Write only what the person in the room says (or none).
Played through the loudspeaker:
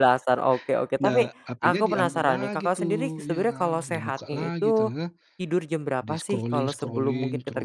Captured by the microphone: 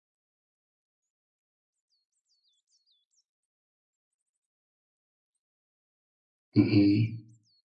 Hmm.